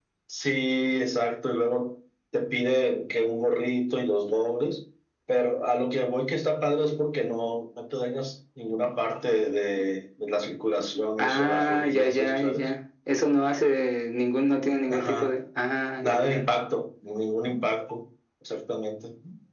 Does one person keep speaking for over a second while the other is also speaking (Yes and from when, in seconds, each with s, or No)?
Yes, from 11.2 s